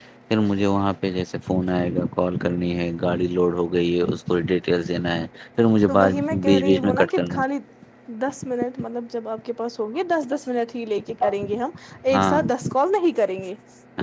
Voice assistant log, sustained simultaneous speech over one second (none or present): present